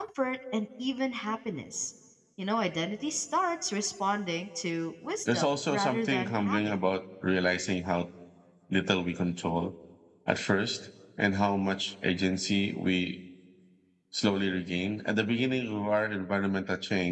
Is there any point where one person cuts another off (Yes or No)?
Yes